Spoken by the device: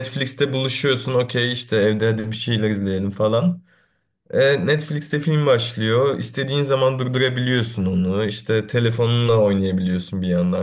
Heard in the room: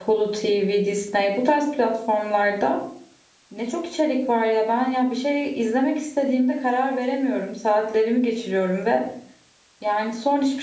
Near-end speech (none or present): present